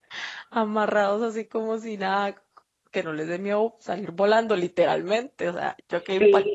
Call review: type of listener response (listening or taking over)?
taking over